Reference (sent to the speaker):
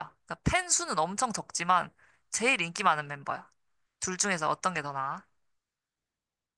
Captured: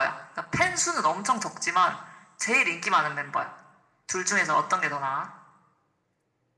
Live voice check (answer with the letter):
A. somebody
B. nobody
B